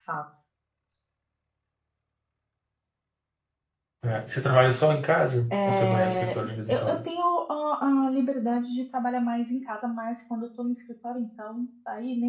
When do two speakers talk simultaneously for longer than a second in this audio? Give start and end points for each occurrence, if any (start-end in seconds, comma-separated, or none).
5.5-7.0